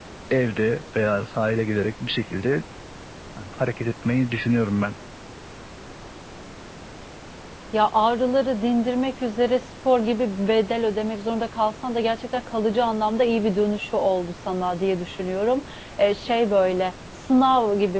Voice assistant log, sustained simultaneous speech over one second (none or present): none